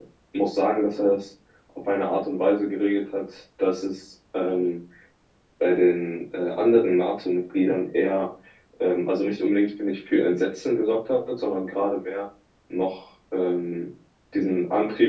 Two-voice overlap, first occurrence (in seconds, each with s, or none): none